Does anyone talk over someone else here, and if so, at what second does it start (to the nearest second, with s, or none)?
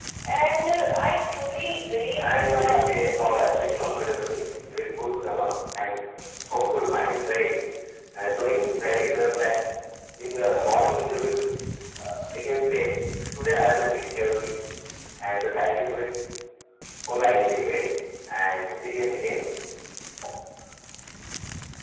2 s